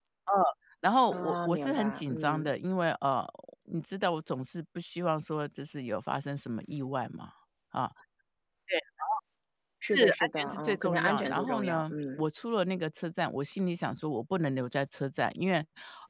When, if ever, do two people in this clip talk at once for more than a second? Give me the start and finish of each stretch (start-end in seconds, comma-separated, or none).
1.1-2.5, 9.9-12.2